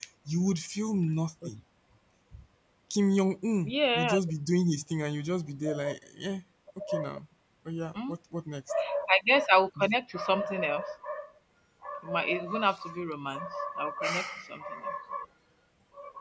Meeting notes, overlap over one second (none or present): none